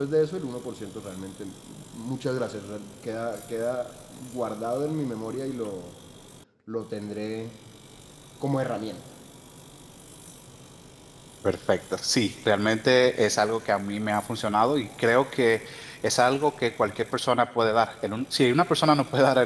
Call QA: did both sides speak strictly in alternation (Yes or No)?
Yes